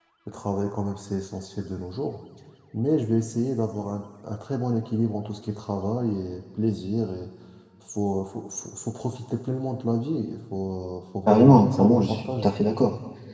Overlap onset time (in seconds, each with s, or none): 11.3 s